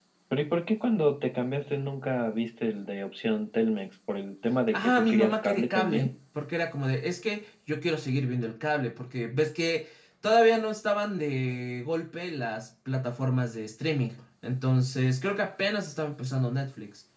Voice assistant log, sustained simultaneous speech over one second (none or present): present